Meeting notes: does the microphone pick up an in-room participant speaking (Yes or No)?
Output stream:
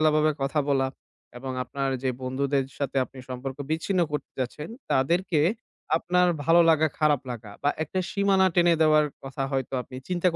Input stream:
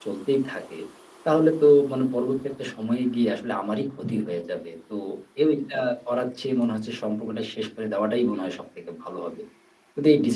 Yes